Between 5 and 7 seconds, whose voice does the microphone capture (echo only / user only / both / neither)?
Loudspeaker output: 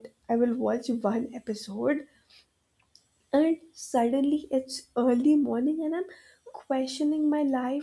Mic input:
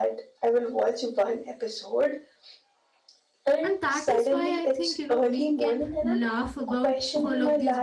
both